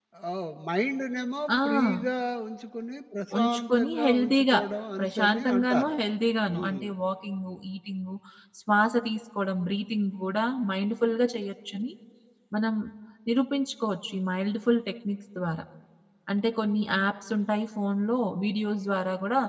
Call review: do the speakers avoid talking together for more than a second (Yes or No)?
No